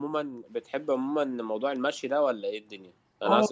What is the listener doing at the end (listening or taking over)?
listening